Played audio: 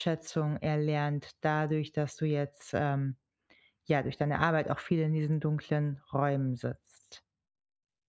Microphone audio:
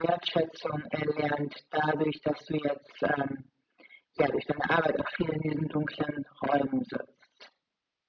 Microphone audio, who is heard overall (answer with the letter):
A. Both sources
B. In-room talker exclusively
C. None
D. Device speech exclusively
D